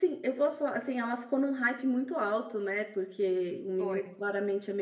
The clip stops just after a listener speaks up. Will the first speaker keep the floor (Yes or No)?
Yes